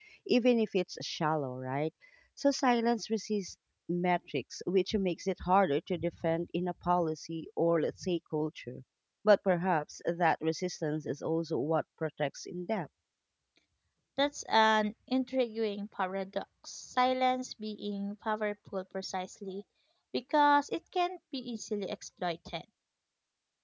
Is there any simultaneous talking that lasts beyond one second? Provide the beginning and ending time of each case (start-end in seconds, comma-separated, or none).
none